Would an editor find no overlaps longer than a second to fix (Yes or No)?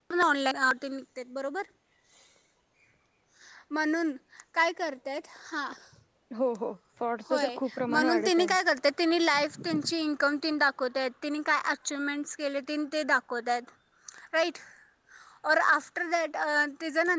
No